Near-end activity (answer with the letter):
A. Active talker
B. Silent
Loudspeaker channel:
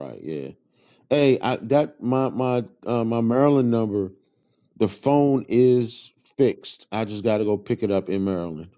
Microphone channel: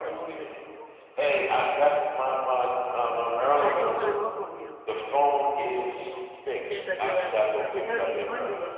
A